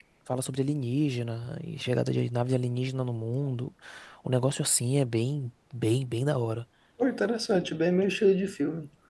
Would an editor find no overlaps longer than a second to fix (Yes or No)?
Yes